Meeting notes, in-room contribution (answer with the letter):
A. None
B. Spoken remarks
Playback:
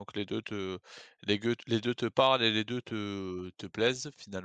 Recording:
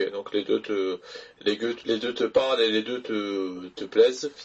A